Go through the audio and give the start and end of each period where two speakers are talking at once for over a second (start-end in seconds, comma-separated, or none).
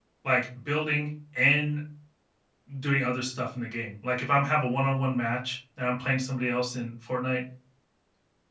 none